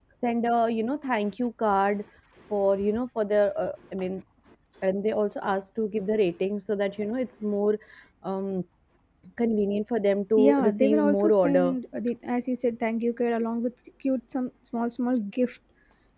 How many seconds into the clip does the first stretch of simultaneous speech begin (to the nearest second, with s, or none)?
10 s